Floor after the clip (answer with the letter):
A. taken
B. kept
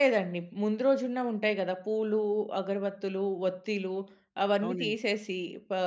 B